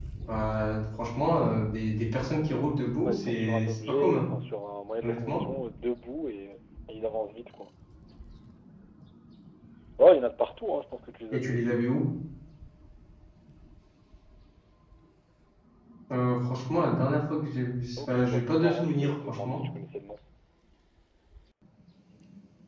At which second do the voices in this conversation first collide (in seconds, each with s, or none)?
3.0 s